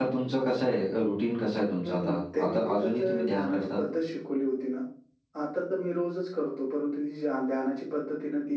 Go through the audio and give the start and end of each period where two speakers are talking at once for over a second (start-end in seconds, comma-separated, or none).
1.8-3.8